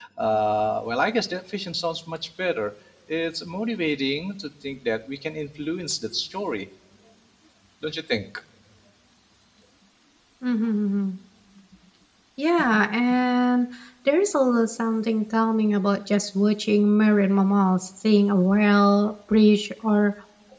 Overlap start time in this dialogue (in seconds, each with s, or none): none